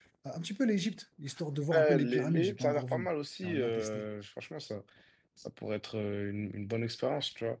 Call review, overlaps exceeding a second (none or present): present